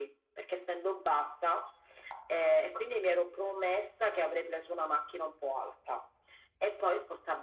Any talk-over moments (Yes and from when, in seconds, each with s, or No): No